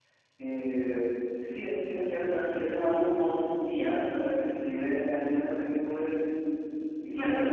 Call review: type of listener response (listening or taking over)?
taking over